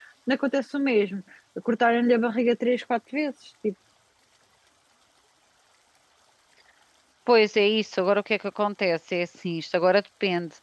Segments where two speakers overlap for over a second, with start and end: none

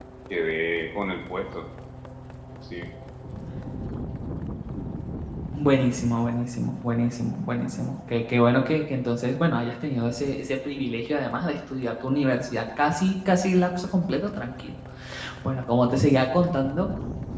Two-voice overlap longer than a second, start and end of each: none

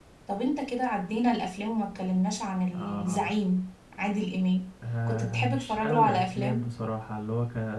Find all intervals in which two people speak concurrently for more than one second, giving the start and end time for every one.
5.1-6.6

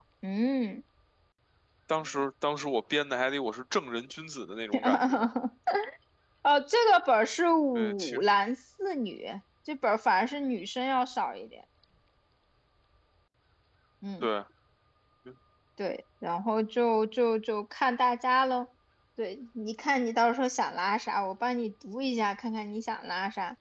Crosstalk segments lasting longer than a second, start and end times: none

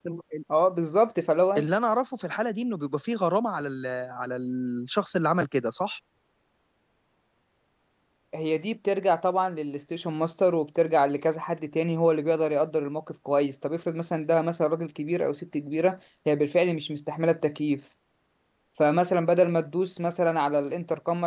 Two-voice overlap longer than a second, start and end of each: none

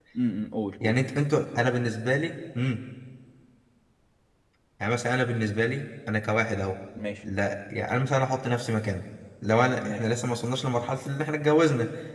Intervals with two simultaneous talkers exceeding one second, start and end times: none

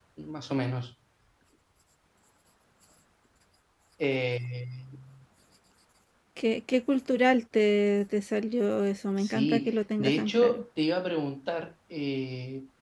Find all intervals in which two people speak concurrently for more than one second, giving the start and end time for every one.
9.2-10.6

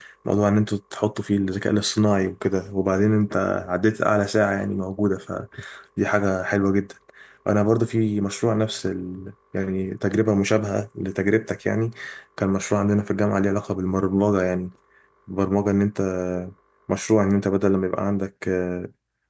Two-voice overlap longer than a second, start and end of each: none

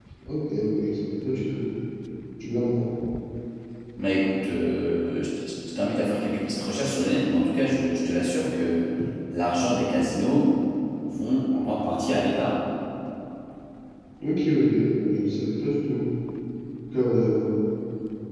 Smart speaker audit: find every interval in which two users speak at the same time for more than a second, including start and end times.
none

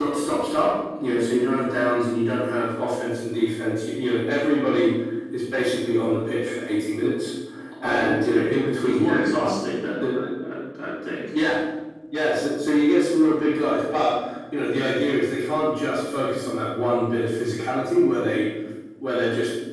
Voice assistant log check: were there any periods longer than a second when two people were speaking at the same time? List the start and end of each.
7.8-9.5

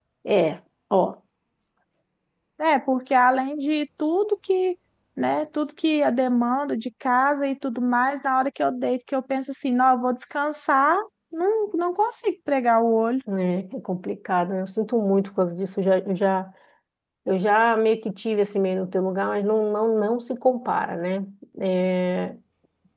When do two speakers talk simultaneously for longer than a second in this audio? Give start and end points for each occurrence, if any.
none

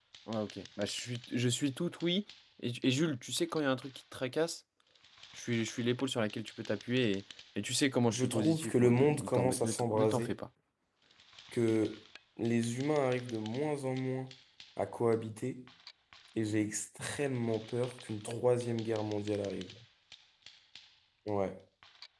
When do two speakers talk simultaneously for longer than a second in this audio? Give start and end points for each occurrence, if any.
8.1-10.4

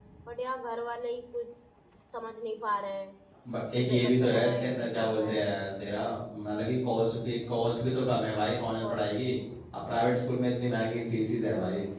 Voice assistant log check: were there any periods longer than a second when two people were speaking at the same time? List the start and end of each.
3.8-5.4

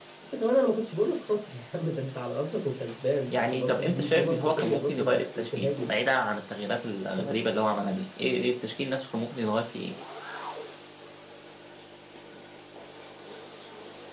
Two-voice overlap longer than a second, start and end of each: 3.3-5.9

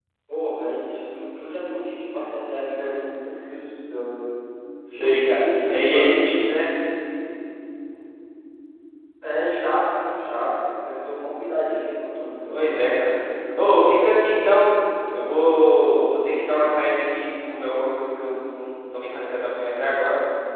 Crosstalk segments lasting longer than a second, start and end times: 4.9-6.2

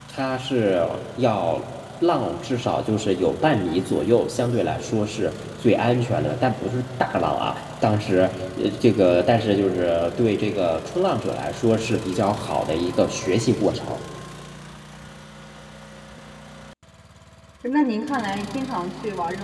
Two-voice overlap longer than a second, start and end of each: none

